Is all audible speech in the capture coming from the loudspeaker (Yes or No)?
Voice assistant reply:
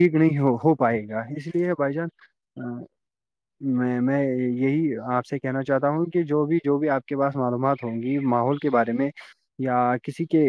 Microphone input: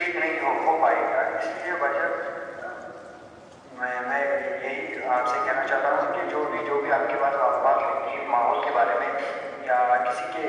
No